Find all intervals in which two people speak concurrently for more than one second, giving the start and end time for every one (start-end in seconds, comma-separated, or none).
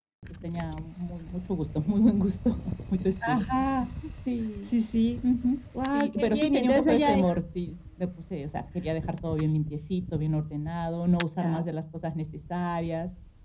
5.9-7.3